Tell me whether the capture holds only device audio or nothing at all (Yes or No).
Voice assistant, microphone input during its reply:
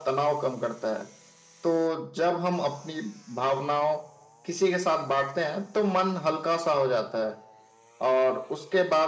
Yes